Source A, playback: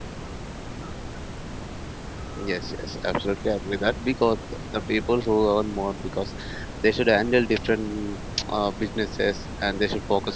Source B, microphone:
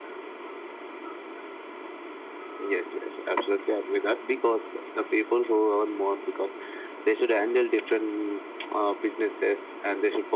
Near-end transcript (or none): none